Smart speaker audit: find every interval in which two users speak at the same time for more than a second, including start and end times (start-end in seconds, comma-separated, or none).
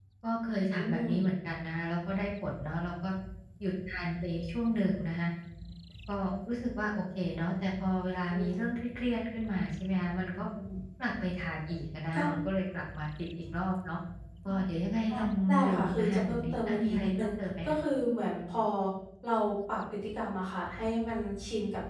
15.1-17.3